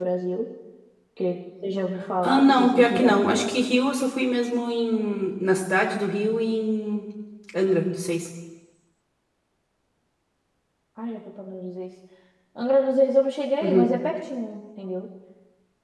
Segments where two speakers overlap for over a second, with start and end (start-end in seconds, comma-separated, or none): 2.2-3.5